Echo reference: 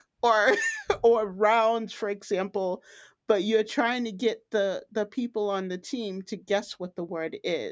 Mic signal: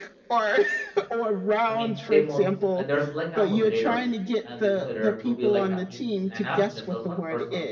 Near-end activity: present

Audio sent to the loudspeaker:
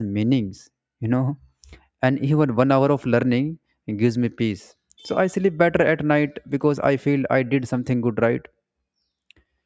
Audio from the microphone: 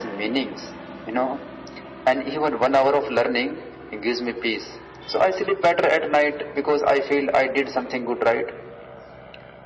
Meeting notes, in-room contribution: none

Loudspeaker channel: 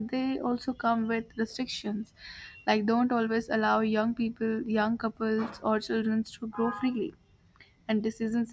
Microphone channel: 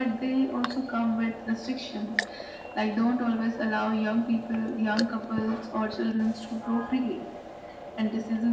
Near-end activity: none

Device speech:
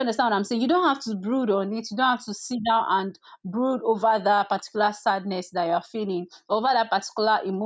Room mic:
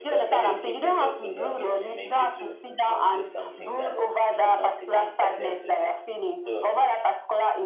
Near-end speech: present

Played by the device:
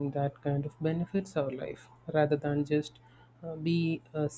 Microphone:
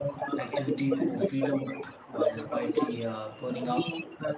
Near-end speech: present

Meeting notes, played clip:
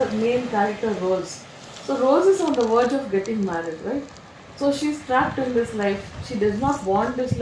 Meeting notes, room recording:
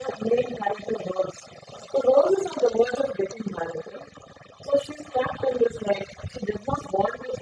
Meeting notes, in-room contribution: none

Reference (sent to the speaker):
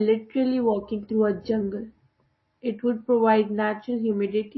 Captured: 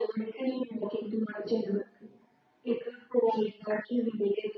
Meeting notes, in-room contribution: none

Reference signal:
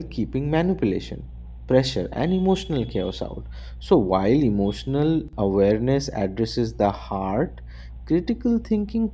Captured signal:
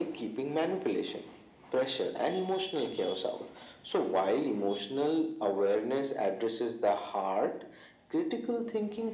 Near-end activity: none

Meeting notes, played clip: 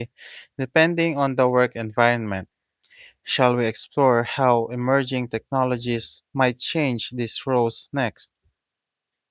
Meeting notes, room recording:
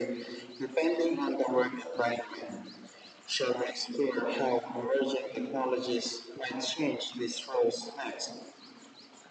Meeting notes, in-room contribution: none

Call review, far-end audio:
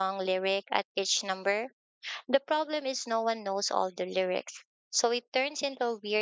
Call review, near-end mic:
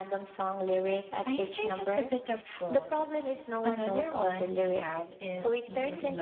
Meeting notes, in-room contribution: present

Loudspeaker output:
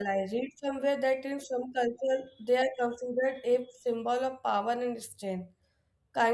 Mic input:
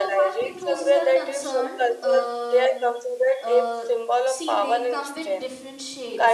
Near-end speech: present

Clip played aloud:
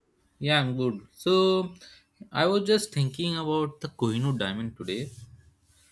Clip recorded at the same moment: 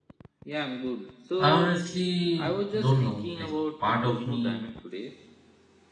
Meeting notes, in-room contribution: present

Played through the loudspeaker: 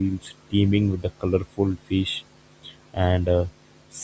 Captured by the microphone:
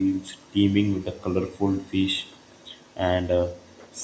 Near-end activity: none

